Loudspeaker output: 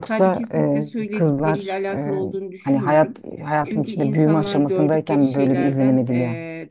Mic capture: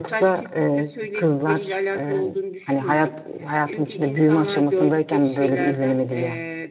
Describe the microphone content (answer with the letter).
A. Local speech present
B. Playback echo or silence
B